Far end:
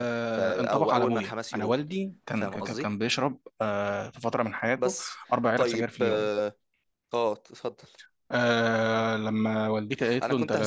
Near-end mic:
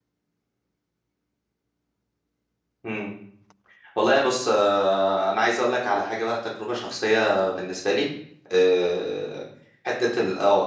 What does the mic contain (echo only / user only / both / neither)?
user only